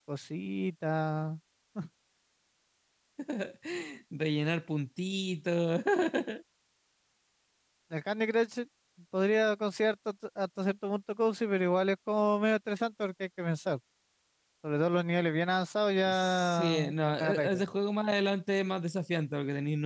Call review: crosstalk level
present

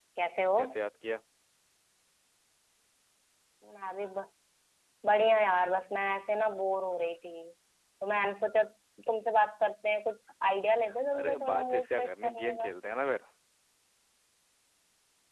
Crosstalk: present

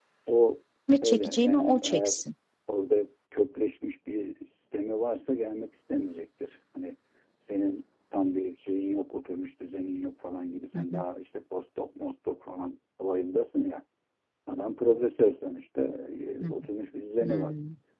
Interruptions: present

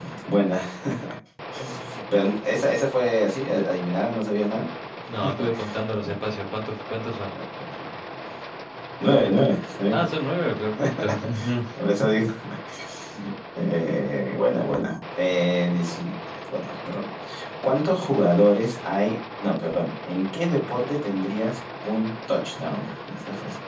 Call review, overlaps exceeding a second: none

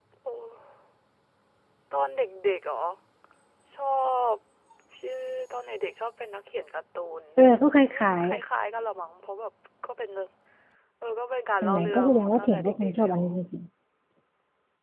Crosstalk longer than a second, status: present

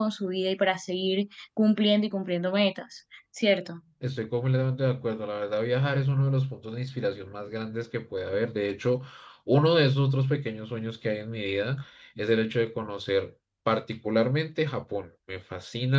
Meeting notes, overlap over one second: none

